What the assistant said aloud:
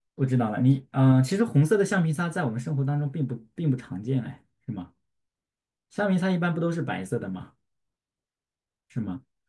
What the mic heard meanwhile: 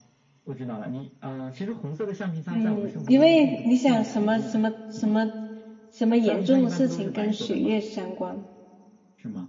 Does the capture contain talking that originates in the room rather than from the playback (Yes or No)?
Yes